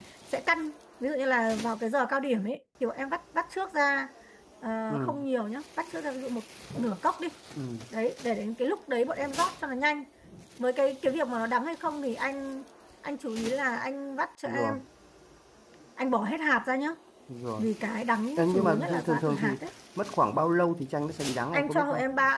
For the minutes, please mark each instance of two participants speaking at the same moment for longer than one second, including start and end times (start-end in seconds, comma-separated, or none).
18.4-19.6